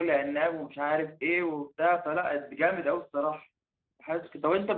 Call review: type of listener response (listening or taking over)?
listening